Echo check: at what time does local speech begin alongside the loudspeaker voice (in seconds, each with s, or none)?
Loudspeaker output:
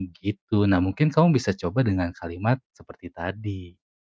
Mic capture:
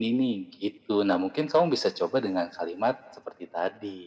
none